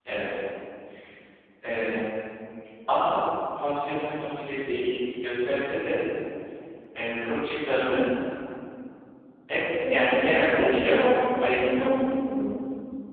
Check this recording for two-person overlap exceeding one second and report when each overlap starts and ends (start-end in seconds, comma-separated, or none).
10.5-11.9